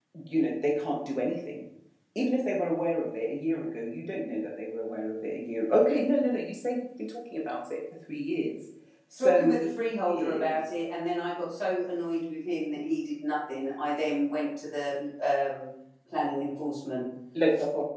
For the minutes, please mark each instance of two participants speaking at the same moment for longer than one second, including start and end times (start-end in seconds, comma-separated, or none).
9.2-10.6